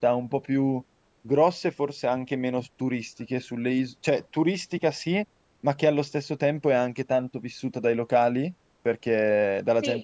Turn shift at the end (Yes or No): No